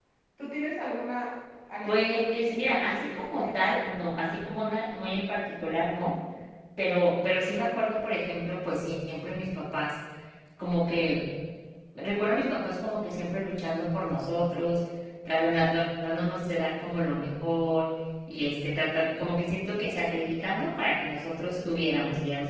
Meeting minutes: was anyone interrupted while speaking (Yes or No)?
Yes